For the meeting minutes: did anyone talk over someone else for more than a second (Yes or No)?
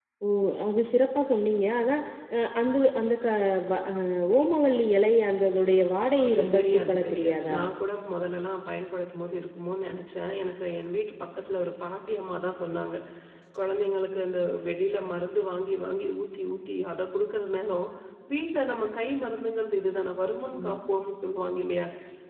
Yes